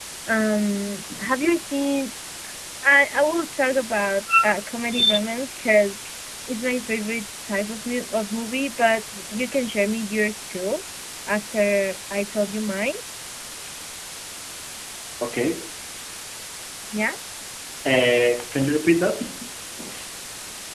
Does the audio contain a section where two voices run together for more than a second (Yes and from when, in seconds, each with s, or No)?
No